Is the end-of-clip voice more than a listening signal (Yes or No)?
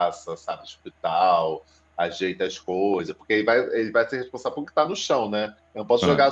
No